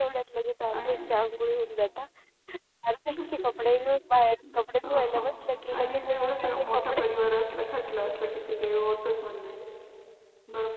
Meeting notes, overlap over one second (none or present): present